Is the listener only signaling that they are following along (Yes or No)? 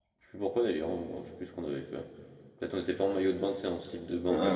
No